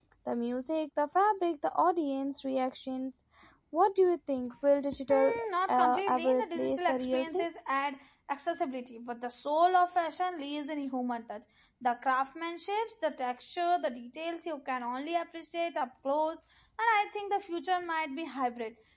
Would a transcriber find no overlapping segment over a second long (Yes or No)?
No